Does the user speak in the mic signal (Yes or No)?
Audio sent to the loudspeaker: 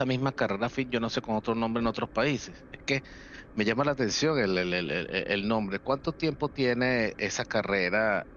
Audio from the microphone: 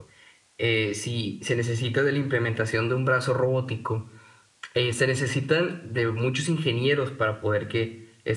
Yes